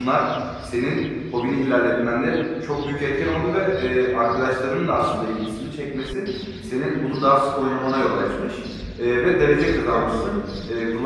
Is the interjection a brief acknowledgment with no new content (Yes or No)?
Yes